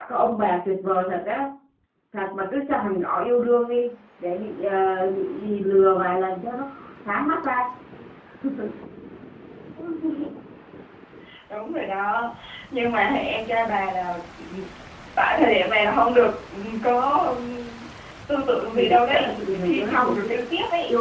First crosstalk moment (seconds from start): 18.8 s

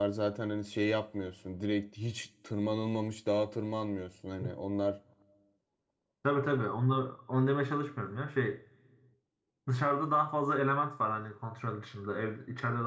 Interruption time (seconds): none

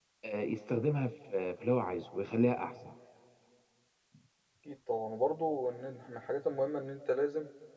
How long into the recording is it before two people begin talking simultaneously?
none

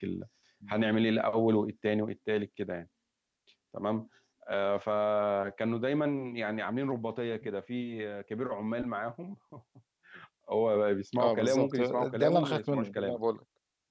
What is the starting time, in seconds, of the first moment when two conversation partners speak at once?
11.2 s

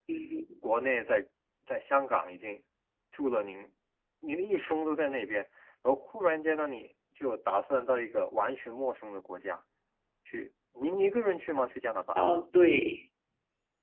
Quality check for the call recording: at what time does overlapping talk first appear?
none

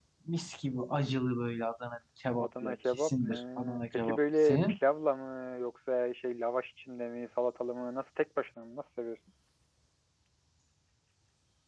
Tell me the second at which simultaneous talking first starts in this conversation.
2.4 s

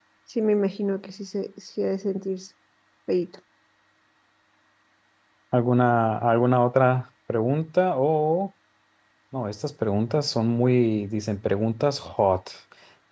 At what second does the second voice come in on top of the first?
none

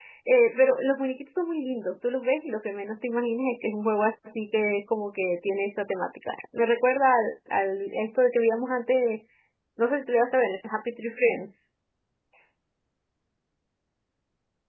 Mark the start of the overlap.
none

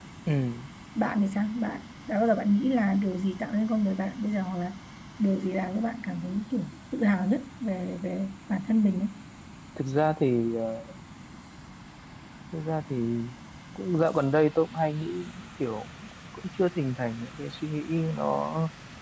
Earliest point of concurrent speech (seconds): none

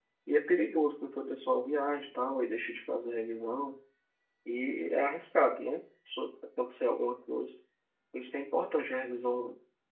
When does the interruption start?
none

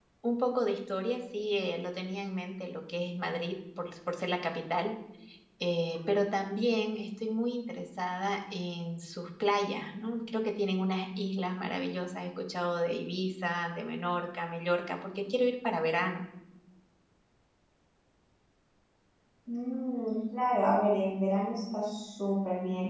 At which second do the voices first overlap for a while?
none

